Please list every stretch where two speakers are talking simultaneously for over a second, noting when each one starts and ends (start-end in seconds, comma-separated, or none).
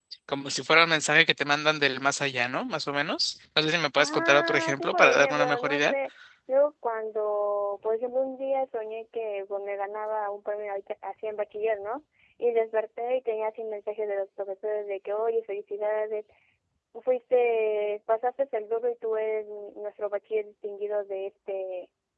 4.0-5.9